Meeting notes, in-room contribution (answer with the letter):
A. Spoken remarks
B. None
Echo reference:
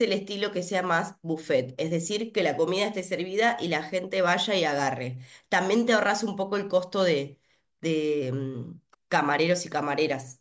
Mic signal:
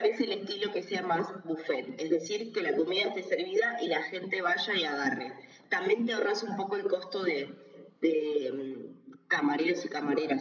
B